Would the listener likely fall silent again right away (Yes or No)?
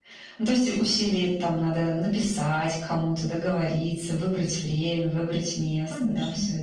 No